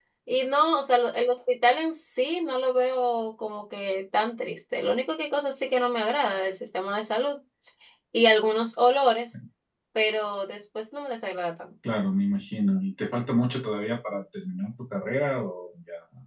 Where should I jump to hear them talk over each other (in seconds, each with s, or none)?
none